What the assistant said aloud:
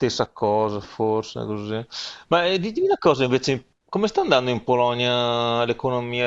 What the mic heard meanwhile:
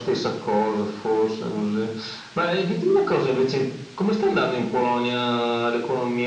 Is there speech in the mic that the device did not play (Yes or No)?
No